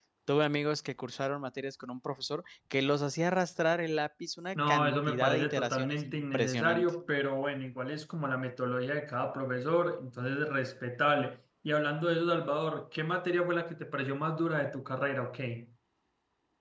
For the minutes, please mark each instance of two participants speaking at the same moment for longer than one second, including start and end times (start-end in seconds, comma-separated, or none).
4.5-6.9